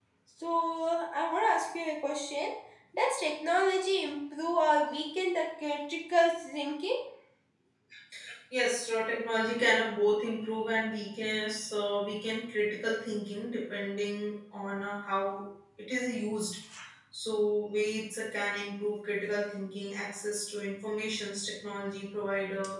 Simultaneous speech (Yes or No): No